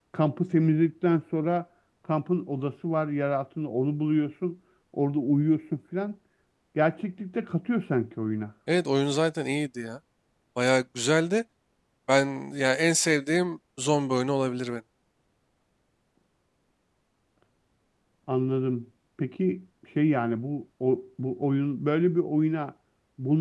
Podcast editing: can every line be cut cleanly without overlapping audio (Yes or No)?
Yes